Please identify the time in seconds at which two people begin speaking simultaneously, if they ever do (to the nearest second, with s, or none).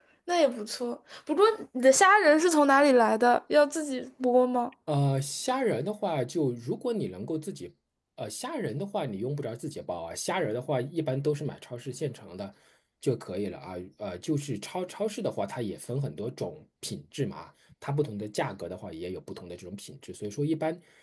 none